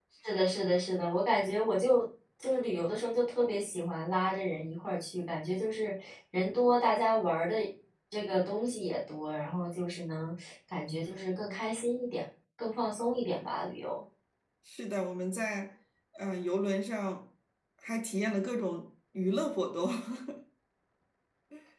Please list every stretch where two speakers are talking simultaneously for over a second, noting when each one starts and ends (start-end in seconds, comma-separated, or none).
none